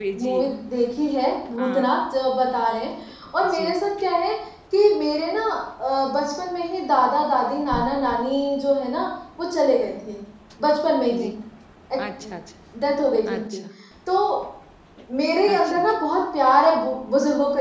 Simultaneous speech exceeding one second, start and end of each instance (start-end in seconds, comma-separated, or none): none